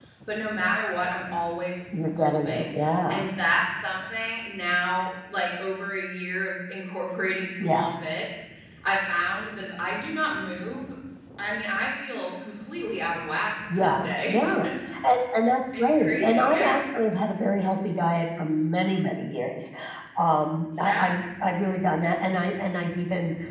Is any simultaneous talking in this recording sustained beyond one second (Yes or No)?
Yes